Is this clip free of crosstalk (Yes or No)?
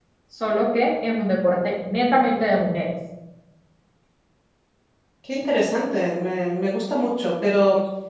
Yes